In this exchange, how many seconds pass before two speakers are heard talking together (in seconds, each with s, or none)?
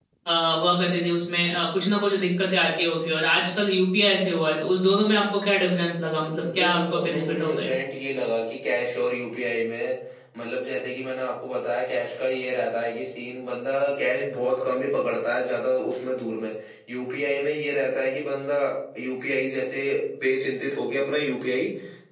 6.4 s